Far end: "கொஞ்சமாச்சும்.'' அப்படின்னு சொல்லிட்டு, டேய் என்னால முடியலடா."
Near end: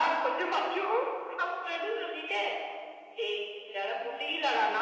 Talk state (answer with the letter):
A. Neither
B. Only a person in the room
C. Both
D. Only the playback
D